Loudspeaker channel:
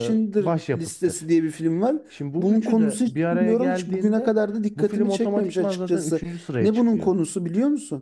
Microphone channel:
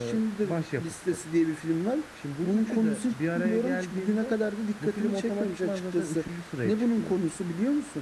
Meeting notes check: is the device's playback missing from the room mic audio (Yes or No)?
No